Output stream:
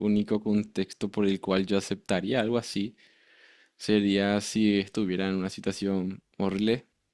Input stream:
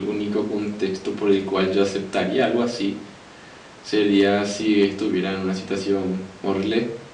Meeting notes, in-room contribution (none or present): none